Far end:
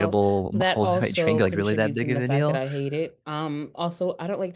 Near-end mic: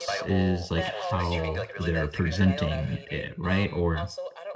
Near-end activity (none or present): present